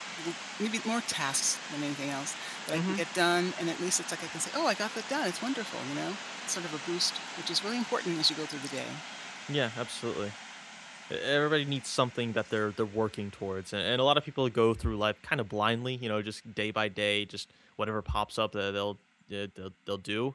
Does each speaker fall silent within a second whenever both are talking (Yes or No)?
Yes